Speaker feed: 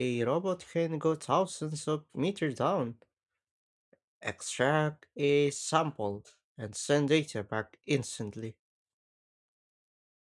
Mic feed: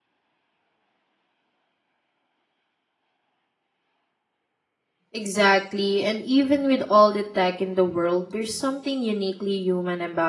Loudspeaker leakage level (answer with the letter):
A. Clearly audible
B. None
B